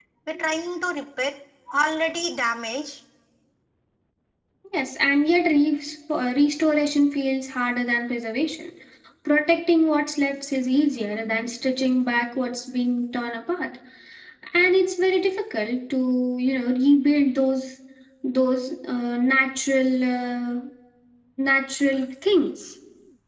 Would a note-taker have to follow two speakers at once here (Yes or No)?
No